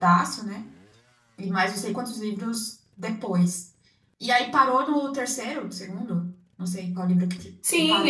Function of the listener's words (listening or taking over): taking over